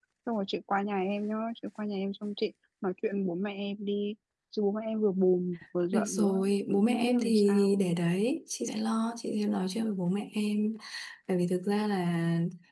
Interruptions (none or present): present